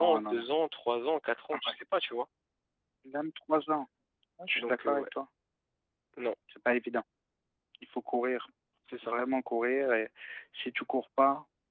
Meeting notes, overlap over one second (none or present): none